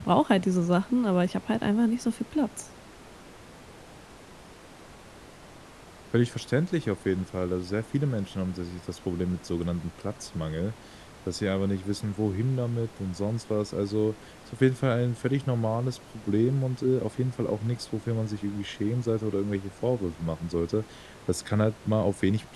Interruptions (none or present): none